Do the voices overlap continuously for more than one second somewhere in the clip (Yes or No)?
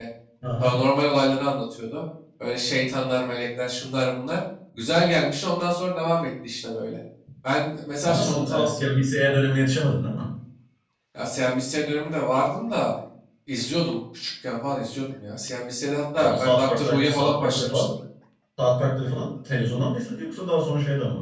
Yes